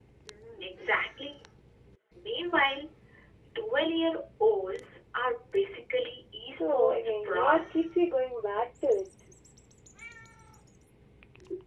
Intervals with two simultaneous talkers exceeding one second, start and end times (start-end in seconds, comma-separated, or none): 6.5-7.8